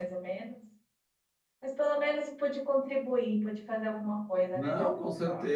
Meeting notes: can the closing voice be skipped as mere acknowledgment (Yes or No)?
No